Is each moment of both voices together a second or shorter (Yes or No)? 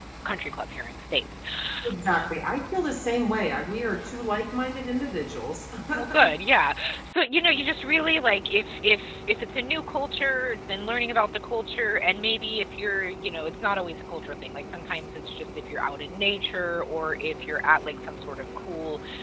Yes